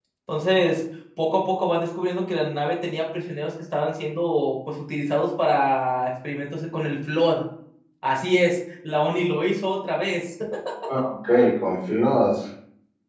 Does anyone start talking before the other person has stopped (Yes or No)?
No